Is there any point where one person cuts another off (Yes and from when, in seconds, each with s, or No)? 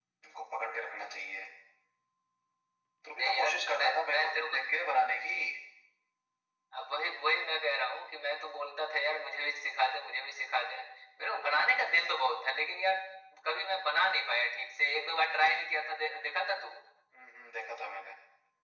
Yes, from 3.1 s